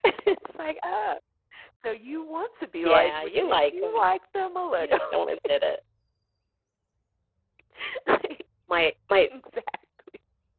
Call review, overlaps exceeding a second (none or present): present